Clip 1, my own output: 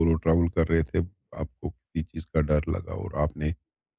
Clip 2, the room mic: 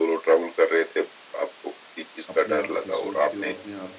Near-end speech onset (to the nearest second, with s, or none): 2 s